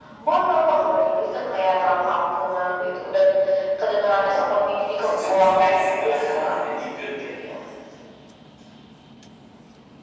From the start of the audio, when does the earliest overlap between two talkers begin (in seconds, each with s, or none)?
4.9 s